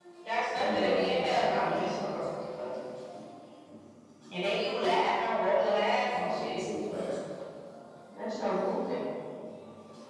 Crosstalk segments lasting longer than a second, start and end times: 0.6-2.1

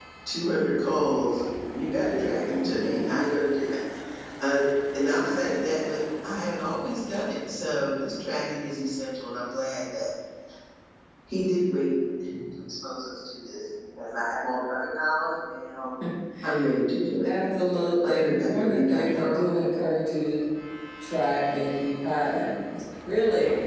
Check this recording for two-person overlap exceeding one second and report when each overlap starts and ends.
18.0-19.4

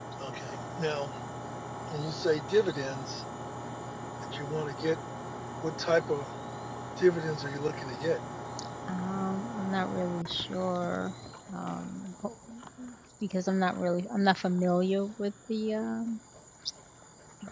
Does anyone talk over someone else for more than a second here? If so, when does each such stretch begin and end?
none

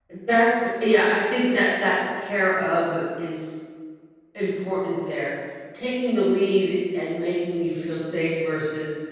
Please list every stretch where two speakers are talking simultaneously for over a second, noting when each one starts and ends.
none

